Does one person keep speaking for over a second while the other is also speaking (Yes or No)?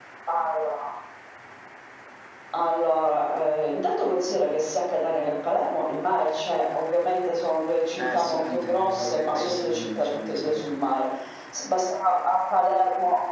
Yes